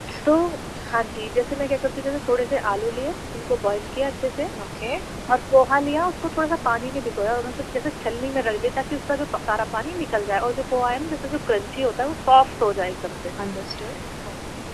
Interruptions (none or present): none